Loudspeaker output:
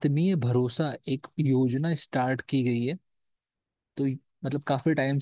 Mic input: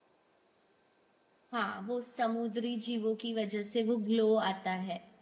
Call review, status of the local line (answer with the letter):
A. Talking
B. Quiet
A